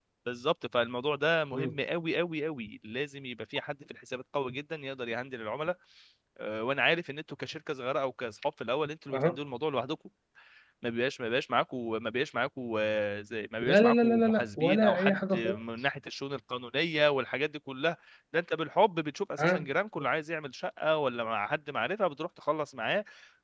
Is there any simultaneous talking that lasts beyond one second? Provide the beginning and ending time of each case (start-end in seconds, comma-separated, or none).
13.6-15.6